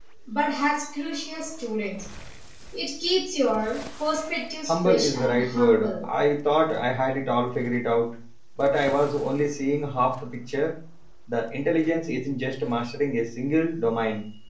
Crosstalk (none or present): present